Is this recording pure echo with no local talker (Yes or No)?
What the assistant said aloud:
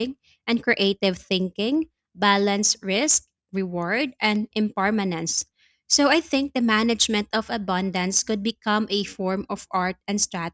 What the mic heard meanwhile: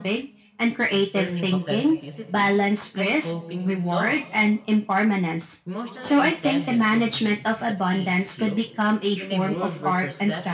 No